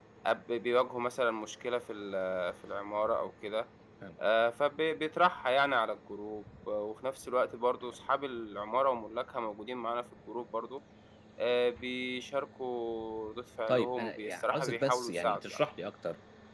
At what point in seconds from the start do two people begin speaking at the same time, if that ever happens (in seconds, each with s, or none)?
13.7 s